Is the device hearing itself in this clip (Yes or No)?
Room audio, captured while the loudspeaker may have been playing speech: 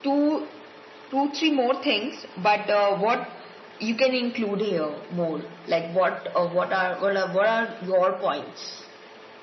Yes